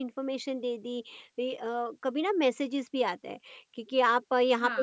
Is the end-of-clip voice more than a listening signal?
No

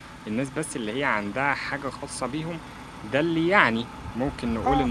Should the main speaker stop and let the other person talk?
Yes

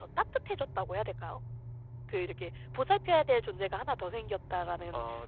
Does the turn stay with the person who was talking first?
Yes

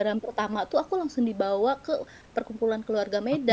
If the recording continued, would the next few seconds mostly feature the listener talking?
Yes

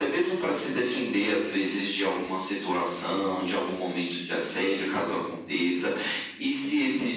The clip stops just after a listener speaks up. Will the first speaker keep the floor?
Yes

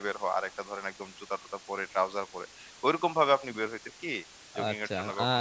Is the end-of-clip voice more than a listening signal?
Yes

